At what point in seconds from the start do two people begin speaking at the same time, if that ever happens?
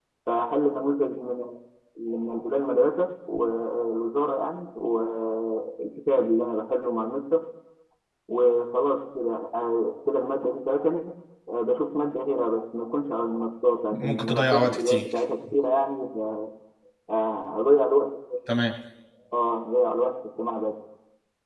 13.9 s

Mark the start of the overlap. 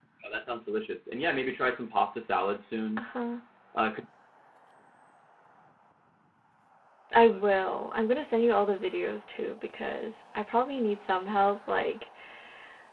none

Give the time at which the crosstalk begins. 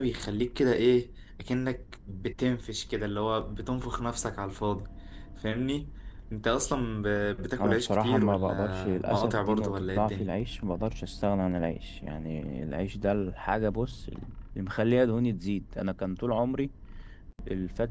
7.6 s

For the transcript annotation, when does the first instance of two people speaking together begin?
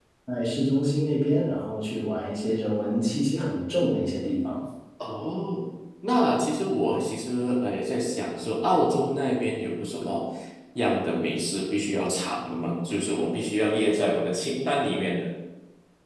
none

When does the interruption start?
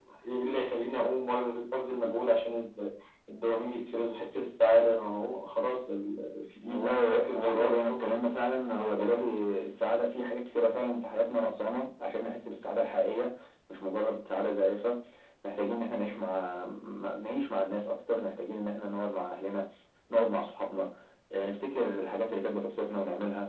6.7 s

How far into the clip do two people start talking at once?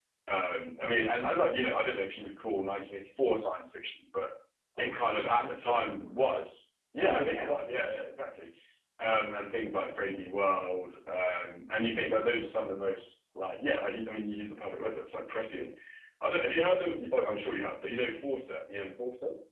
4.8 s

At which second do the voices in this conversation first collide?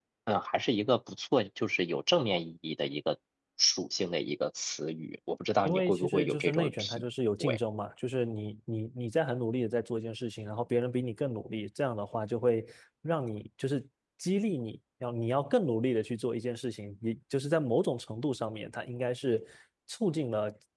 5.6 s

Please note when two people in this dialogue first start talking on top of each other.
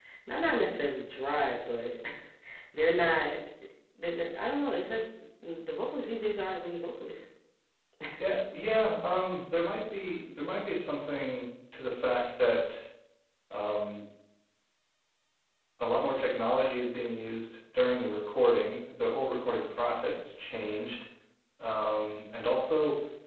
none

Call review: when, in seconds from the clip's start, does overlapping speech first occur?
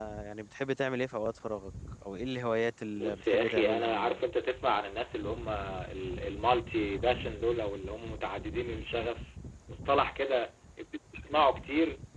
2.9 s

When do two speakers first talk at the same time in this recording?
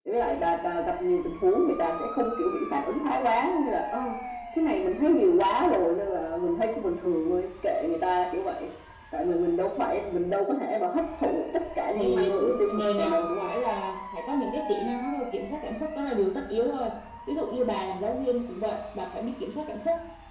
11.9 s

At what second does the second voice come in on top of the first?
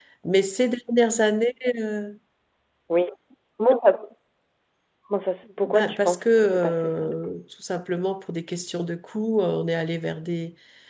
5.6 s

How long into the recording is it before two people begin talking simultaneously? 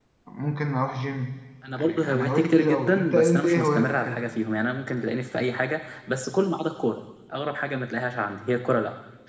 1.6 s

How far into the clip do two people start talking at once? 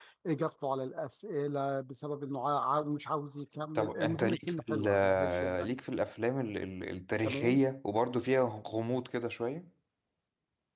3.8 s

